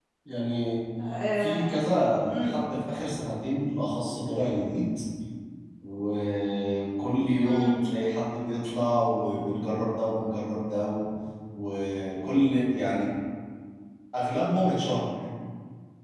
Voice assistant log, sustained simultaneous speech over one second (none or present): none